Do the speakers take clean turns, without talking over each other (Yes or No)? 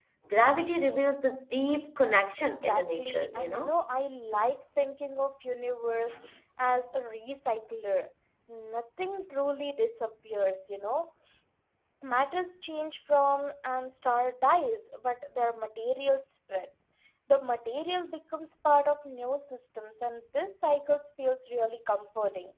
No